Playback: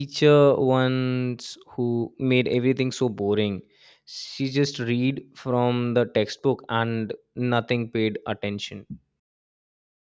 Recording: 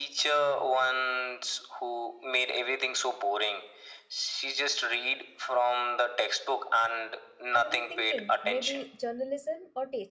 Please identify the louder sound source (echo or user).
echo